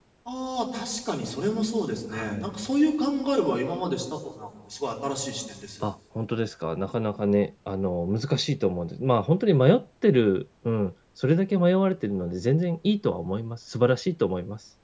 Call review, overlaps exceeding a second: none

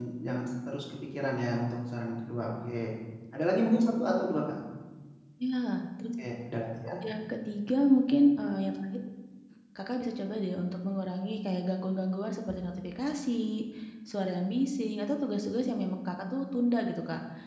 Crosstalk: none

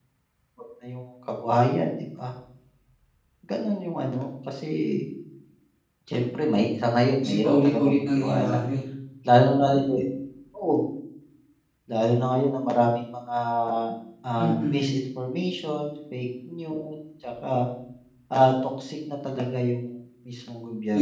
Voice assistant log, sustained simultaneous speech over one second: present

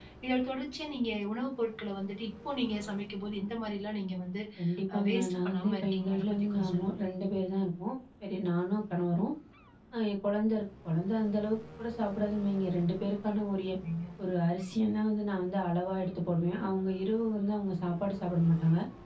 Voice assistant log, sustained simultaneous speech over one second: present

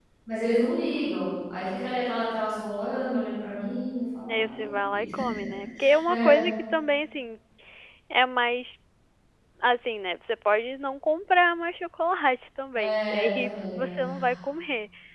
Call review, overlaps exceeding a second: present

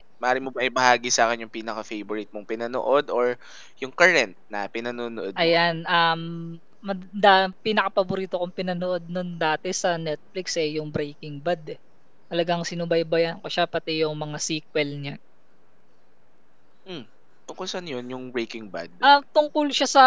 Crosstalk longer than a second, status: none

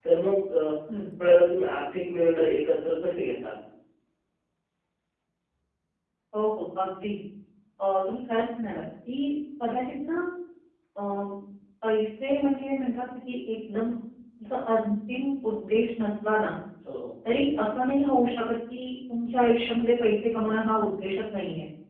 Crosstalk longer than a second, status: none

